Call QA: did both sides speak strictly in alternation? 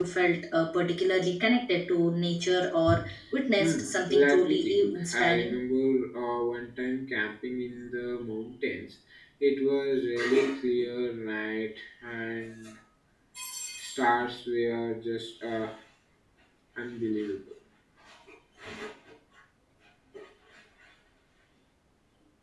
No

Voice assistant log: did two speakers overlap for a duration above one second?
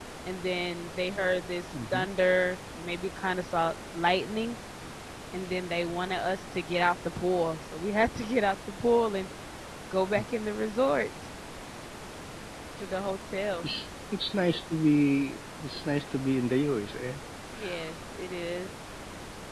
No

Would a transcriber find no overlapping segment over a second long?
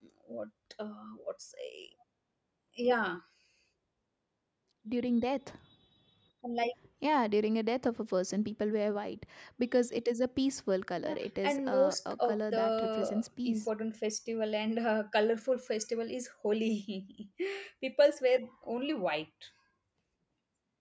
No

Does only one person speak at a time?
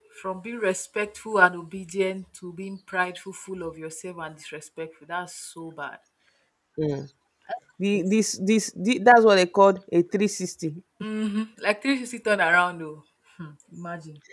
Yes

